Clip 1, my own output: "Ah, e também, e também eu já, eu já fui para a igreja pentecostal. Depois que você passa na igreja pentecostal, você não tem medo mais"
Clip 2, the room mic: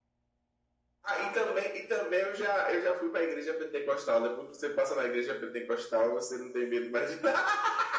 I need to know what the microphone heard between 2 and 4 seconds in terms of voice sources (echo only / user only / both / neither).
echo only